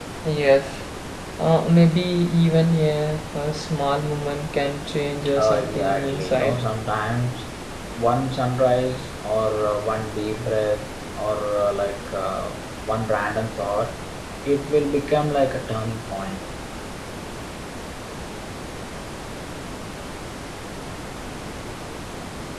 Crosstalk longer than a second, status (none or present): present